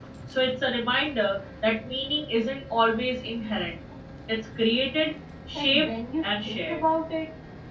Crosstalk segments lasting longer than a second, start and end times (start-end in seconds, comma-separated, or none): 5.5-6.8